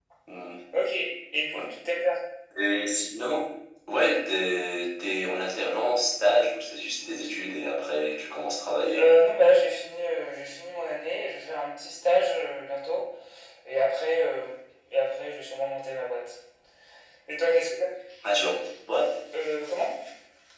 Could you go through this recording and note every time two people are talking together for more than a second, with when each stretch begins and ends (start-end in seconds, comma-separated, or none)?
none